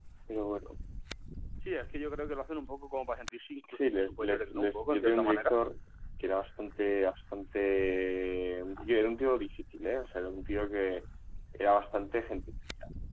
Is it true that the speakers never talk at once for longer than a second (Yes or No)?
No